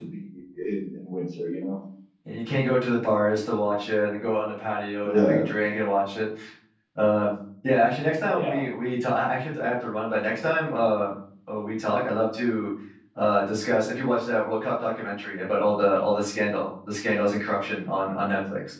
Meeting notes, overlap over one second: none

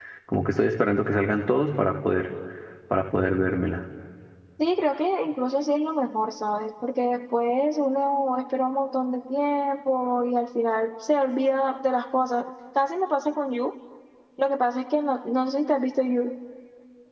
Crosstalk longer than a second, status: none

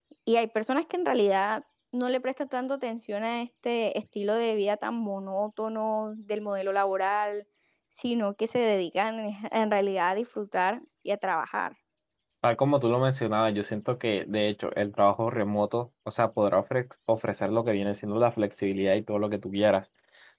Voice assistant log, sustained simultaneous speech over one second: none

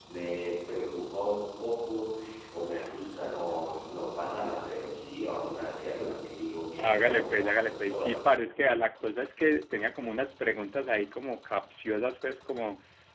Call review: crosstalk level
present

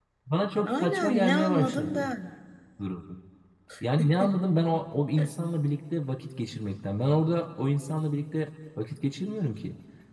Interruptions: present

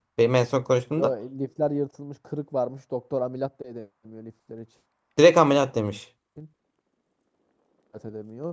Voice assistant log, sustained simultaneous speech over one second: none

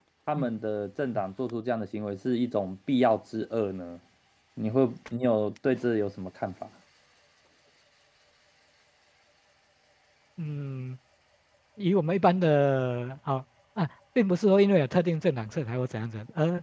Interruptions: none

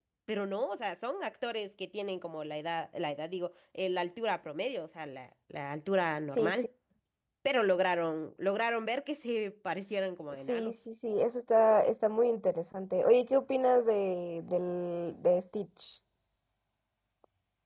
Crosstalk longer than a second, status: none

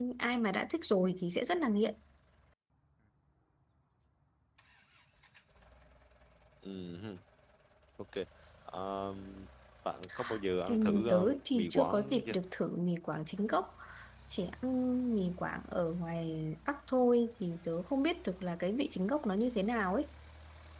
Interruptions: present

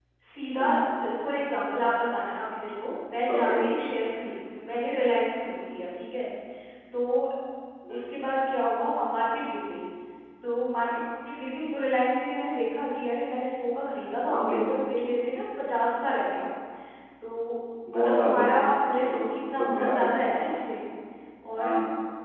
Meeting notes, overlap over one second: present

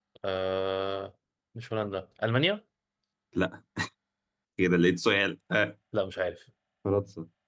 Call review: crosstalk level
none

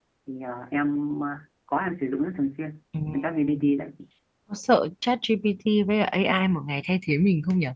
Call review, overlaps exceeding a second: none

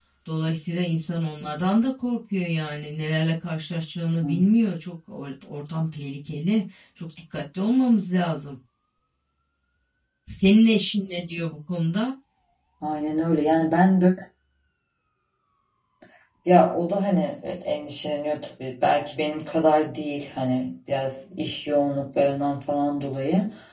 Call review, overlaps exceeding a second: none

